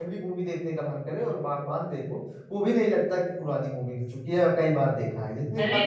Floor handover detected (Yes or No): Yes